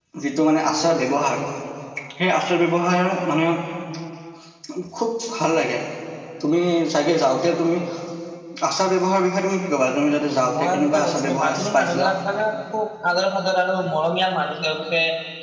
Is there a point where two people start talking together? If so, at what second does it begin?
10.4 s

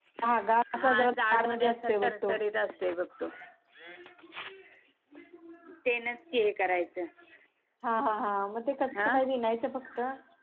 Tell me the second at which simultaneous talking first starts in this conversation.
0.8 s

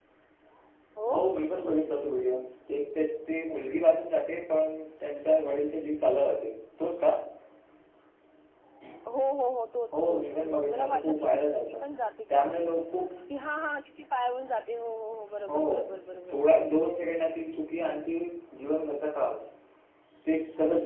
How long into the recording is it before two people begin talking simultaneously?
9.9 s

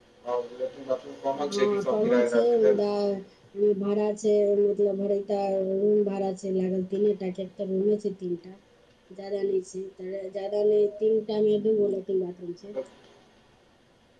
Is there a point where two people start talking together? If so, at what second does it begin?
1.5 s

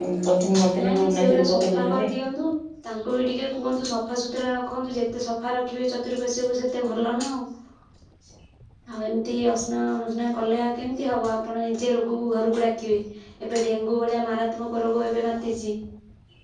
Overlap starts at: 0.8 s

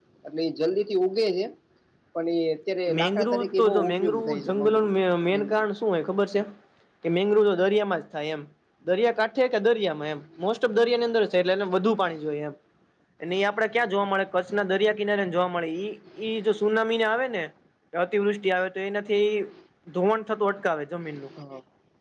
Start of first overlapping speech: 3.0 s

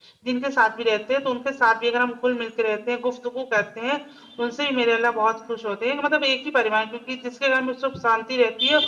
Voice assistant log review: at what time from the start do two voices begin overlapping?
none

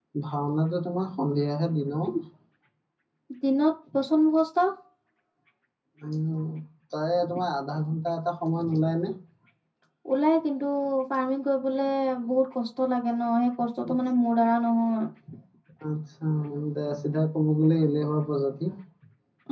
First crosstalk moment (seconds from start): none

